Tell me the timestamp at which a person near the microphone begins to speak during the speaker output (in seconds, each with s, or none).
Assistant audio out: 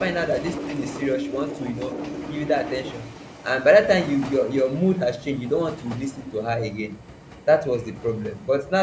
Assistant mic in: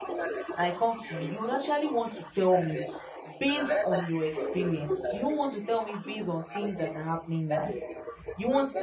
0.5 s